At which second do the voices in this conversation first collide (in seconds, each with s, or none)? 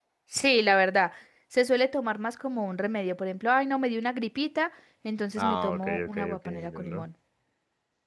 5.4 s